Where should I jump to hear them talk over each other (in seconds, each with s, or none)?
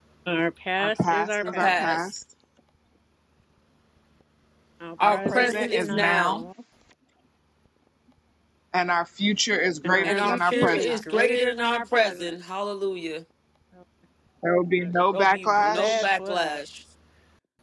0.8 s